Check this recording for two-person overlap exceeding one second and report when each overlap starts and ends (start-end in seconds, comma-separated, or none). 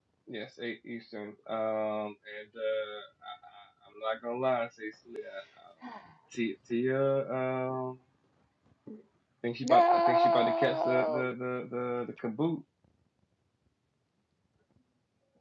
9.6-11.3